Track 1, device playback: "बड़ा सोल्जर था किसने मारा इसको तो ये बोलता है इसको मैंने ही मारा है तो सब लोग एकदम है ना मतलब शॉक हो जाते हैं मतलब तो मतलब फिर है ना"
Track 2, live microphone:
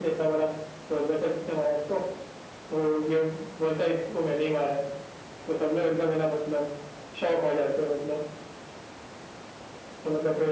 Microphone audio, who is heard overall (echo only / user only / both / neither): echo only